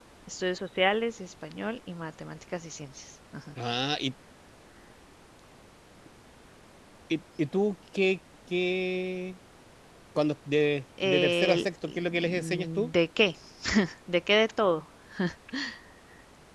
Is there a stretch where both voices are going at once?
Yes, from 11.0 s

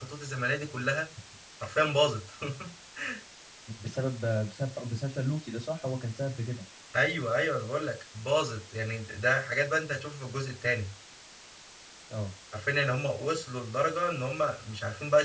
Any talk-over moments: No

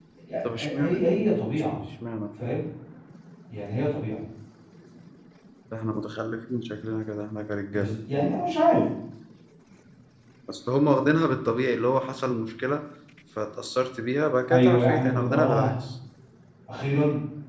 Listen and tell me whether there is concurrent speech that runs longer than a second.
Yes, from 0.6 s

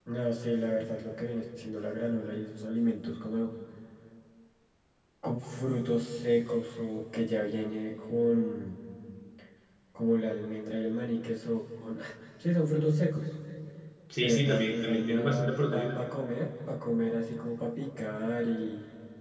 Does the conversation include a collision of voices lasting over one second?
Yes, from 14.2 s

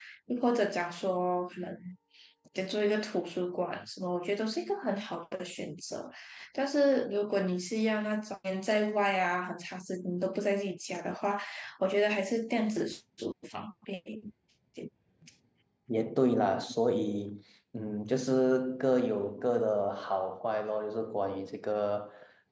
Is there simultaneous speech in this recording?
No

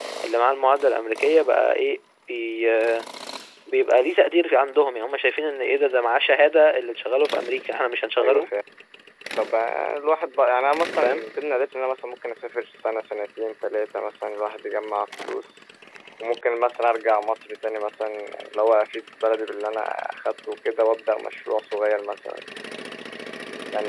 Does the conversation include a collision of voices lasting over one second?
No

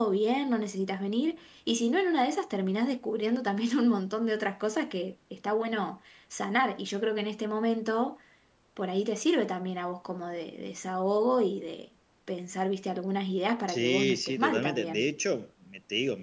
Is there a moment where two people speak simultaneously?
Yes, from 13.7 s

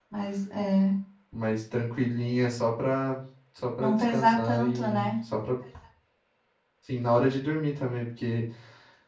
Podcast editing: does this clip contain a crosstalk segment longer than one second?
Yes, from 3.8 s

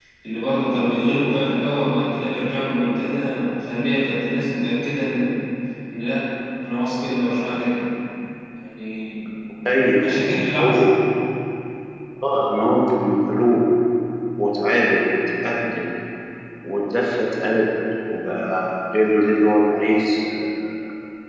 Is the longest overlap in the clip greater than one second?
No

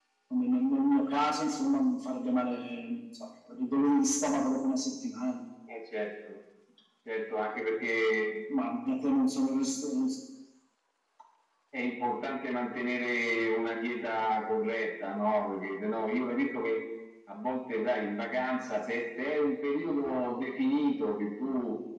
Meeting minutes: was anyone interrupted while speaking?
No

